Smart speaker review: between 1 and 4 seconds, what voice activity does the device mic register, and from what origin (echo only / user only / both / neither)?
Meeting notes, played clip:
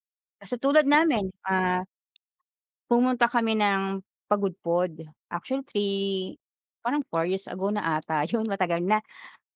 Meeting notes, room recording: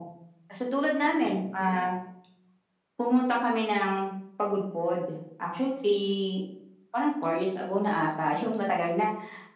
echo only